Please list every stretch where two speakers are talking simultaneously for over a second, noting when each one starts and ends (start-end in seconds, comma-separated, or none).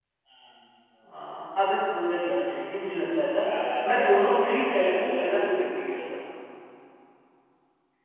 3.9-5.6